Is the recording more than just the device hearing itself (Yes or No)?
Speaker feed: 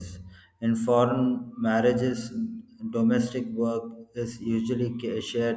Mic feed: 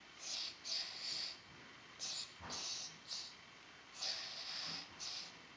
No